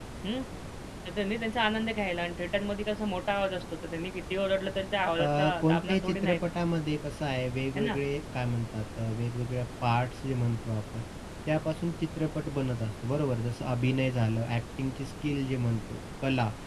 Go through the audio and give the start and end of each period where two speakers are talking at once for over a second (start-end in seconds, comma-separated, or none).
5.2-6.4